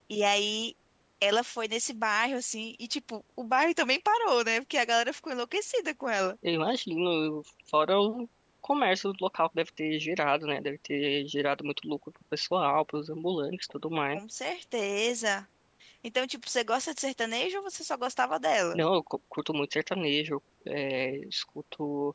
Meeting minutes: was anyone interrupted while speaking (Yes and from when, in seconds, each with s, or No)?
No